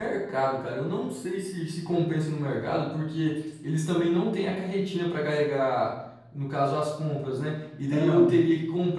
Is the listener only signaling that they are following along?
Yes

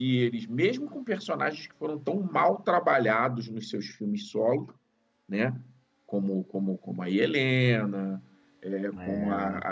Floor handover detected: No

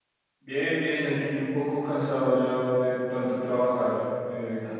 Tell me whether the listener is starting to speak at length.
No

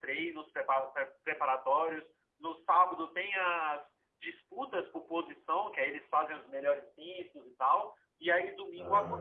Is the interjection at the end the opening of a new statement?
No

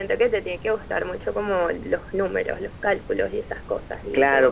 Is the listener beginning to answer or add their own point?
Yes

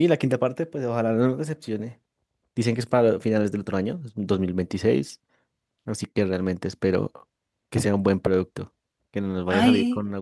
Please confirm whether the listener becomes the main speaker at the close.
No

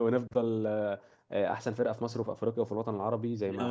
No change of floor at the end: No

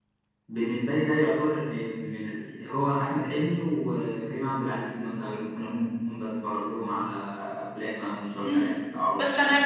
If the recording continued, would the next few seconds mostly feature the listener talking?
Yes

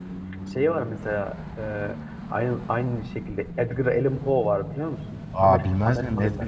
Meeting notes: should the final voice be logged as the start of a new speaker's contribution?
Yes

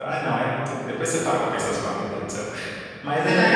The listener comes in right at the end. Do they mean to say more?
Yes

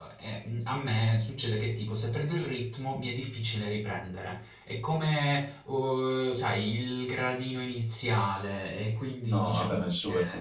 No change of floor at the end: No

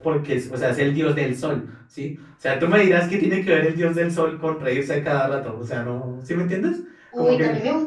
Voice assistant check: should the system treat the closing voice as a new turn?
Yes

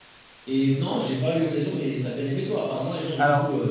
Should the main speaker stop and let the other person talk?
Yes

